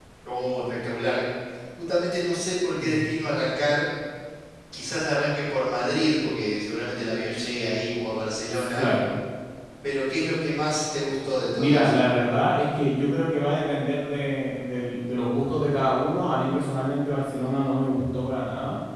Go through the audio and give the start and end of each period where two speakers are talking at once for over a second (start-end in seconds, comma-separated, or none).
none